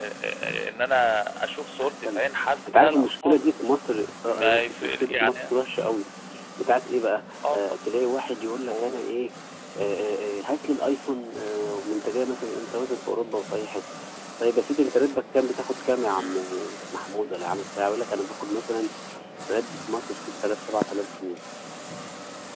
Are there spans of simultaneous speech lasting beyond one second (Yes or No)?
Yes